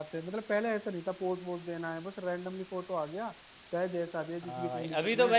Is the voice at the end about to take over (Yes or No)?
Yes